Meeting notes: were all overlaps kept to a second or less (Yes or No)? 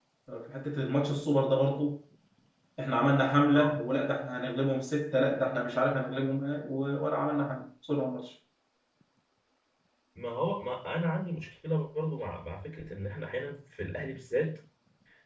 Yes